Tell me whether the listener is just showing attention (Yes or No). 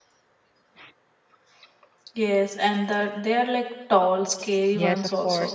No